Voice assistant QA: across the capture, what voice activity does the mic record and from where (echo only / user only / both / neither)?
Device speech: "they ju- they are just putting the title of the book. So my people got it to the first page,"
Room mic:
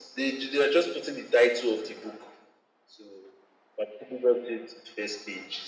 echo only